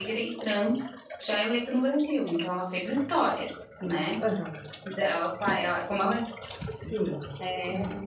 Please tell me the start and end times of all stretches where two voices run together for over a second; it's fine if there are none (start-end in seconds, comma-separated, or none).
none